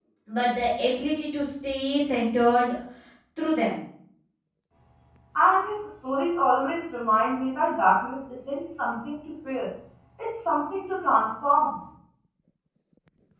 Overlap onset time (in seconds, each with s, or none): none